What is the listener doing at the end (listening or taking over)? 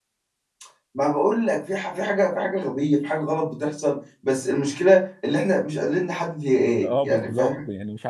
taking over